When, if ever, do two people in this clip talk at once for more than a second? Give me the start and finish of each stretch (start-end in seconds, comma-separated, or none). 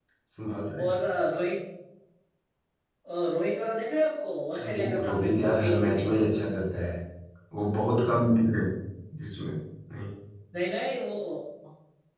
4.7-6.2